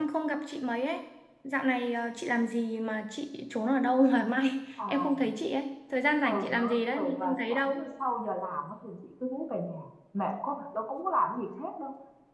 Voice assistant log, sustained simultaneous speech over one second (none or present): present